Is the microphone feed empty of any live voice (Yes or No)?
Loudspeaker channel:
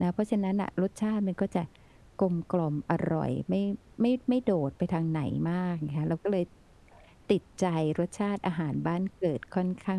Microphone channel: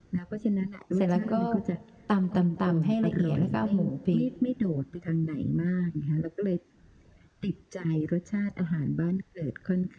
No